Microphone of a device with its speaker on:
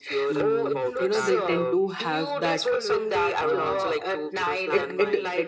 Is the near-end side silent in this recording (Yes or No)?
No